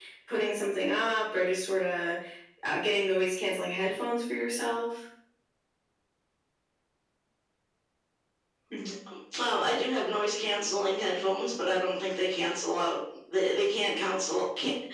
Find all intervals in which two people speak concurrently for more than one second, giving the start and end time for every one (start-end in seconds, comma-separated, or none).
none